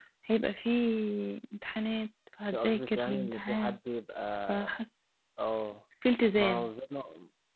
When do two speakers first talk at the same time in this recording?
2.5 s

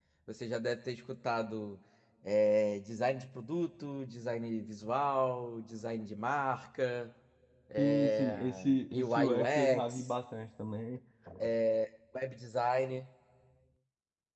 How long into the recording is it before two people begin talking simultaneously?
7.8 s

